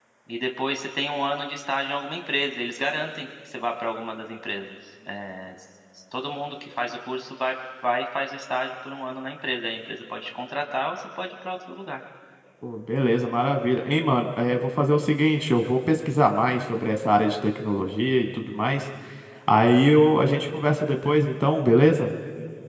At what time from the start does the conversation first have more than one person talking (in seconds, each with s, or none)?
none